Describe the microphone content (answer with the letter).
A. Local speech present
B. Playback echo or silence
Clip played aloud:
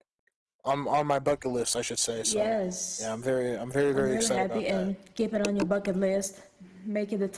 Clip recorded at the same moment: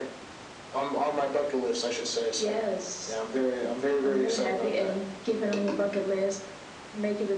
B